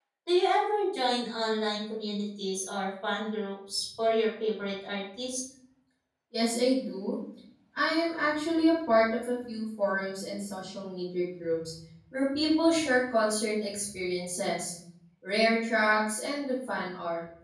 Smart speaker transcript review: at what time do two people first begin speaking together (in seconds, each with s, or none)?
none